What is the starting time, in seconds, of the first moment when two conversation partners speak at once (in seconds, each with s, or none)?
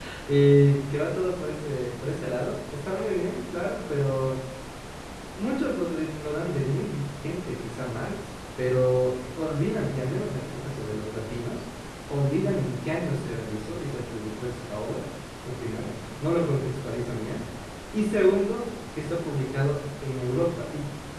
none